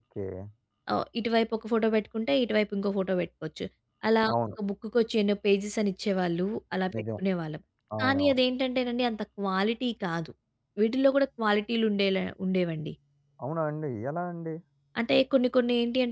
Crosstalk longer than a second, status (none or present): none